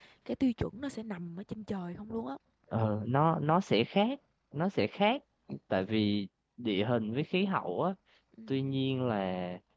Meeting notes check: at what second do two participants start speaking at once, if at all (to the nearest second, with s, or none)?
none